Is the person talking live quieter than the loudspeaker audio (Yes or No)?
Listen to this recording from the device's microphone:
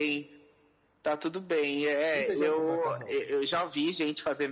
Yes